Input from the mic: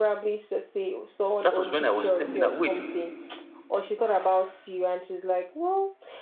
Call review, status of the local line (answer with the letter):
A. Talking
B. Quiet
A